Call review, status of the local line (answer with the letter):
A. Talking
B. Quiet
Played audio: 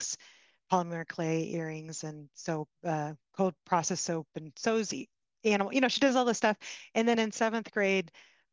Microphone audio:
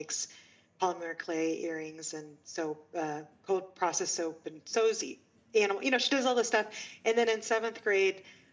B